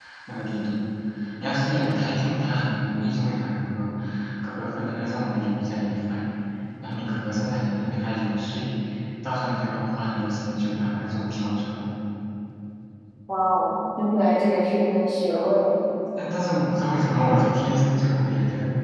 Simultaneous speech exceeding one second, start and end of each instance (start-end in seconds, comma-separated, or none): none